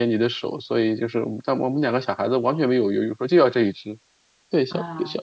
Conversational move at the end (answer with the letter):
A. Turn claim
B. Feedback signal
B